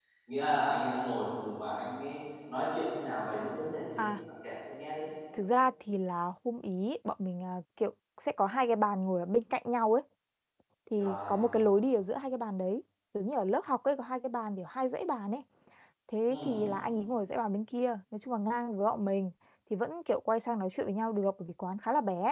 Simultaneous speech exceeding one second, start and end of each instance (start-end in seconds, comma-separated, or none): none